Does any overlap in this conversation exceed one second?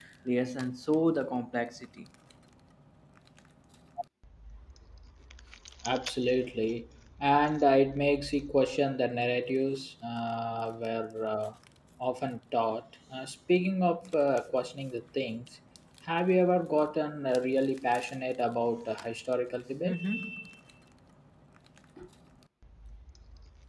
No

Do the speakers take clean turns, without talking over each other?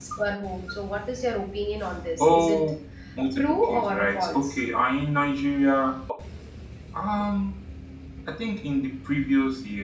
No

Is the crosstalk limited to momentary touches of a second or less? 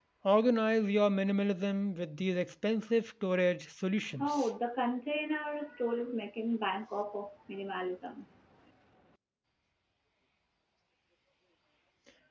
Yes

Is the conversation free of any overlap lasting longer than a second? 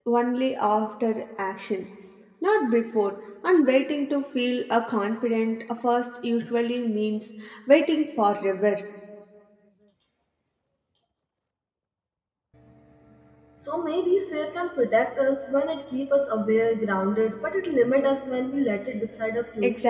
Yes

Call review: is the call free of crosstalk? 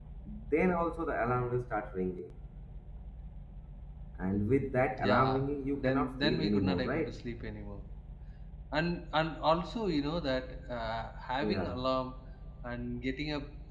No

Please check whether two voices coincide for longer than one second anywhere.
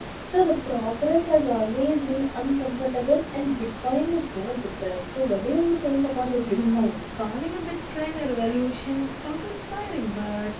No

